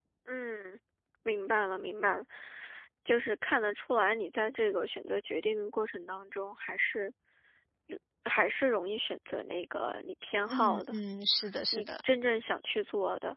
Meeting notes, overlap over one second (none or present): none